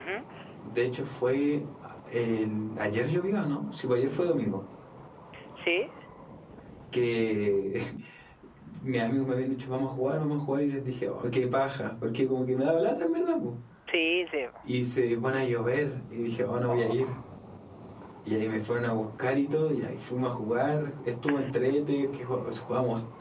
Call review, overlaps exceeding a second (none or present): none